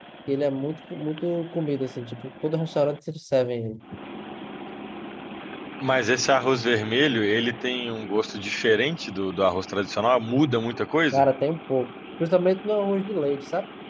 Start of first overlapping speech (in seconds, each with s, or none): none